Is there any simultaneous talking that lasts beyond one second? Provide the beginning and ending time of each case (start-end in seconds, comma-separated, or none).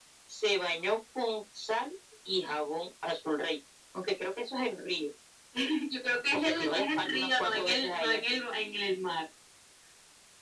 6.3-8.2